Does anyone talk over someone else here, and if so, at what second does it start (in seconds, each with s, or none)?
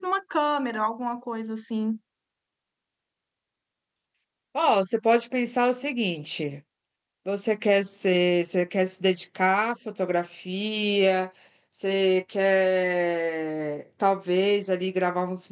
none